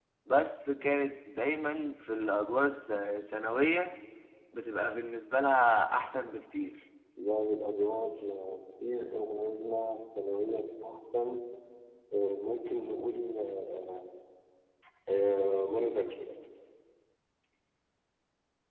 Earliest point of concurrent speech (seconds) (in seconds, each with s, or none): none